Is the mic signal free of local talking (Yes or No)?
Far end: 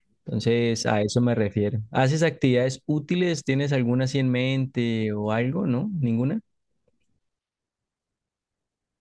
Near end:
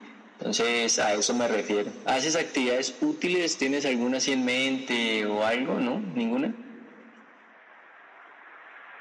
Yes